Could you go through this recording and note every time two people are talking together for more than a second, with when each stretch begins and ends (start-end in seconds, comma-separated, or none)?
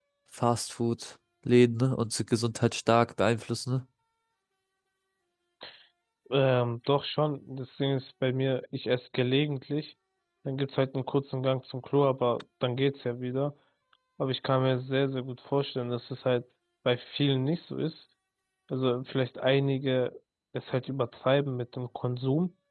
none